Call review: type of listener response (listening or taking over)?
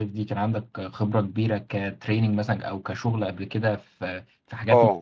taking over